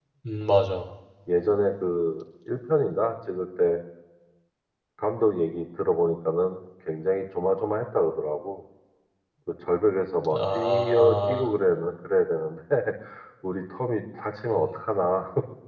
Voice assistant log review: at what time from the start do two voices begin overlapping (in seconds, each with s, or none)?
10.3 s